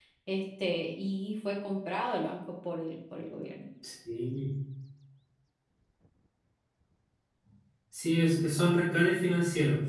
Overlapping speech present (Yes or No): No